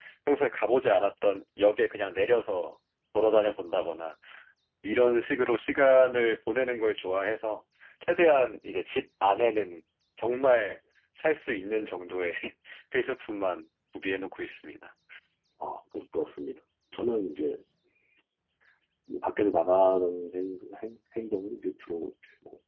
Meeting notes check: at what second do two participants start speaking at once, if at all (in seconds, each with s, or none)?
none